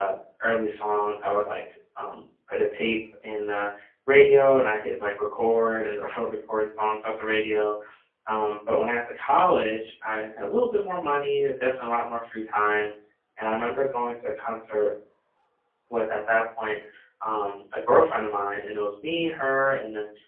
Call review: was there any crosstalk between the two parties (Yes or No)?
No